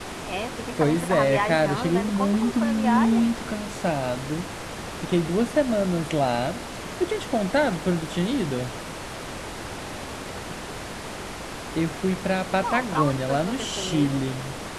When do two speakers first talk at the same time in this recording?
1 s

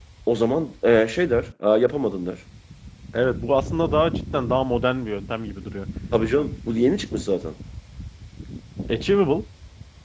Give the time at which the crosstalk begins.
none

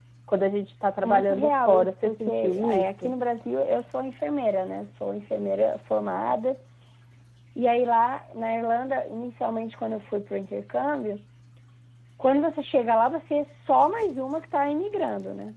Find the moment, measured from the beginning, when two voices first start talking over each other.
1 s

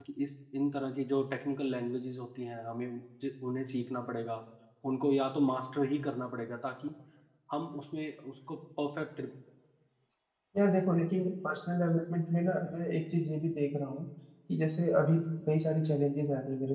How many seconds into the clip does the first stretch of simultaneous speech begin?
none

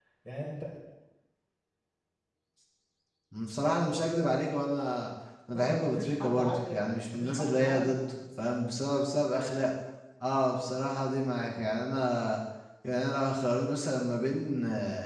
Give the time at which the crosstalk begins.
6 s

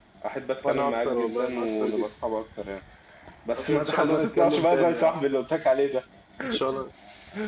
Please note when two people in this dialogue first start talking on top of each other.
1 s

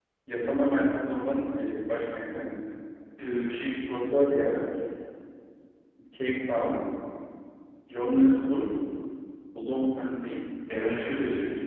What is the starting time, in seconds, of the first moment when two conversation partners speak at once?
none

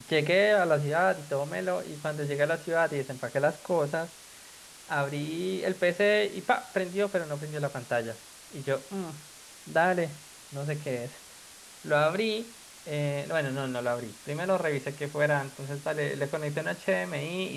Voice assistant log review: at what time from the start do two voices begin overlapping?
none

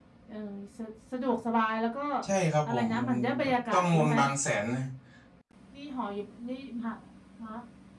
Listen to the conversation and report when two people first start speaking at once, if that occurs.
3 s

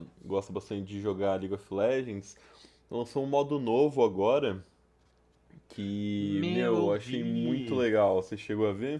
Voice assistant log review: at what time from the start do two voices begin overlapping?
6 s

